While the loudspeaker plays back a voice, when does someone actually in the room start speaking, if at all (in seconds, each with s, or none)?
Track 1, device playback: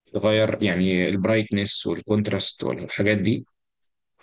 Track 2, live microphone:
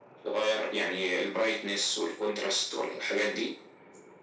none